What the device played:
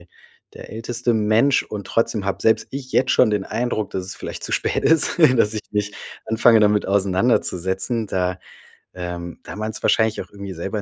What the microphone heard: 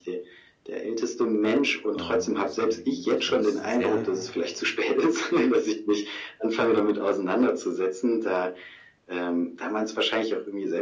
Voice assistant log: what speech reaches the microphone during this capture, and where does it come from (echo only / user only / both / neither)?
both